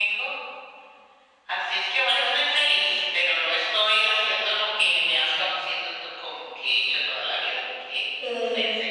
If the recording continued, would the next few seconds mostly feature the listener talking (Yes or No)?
Yes